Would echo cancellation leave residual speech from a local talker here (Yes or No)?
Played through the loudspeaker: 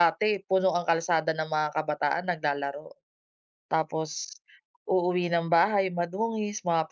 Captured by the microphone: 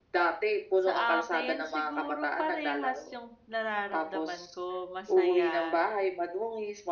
Yes